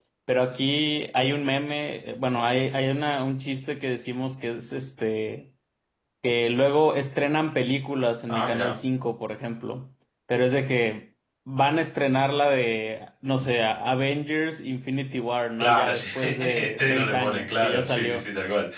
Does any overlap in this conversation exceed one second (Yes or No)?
Yes